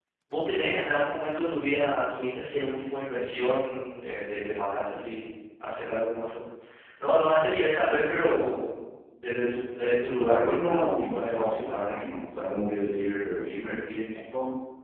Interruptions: present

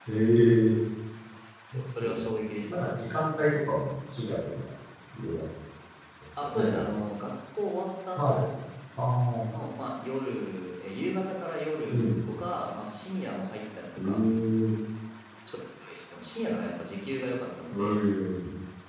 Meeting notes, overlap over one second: none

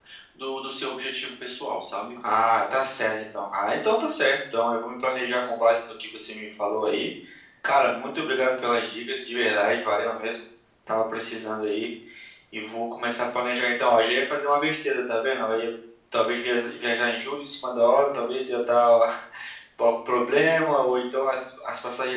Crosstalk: none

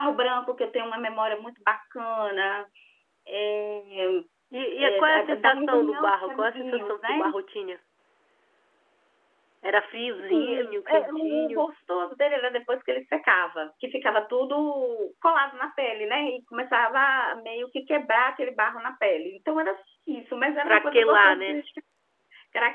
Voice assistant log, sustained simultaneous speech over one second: present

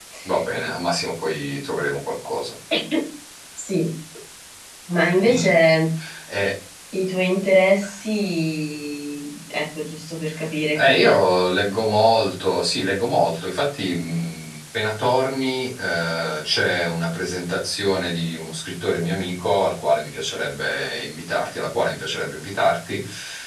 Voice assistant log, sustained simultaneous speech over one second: none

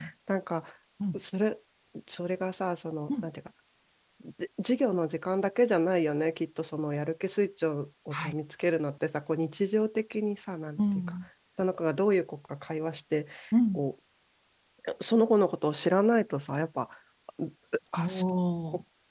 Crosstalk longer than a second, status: none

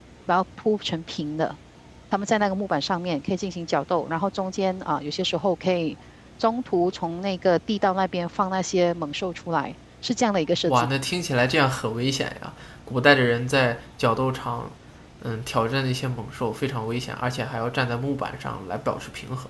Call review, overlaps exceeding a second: none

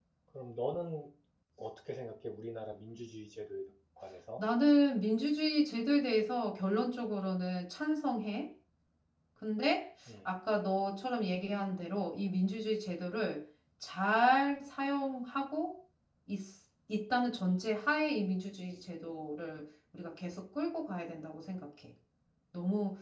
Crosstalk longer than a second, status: none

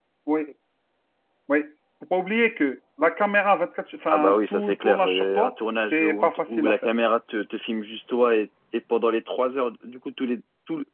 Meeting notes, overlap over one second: present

